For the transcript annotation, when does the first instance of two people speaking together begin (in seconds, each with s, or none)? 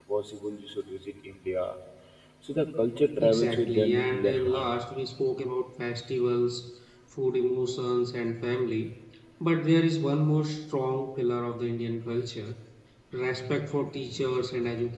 3.2 s